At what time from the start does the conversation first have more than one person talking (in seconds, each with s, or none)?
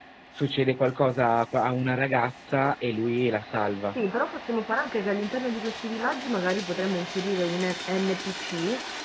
none